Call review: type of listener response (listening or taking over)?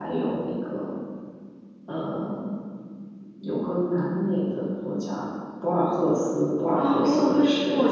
taking over